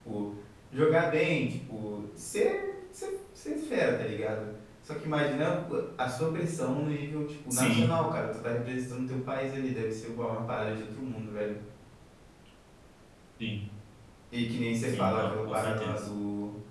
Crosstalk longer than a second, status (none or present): present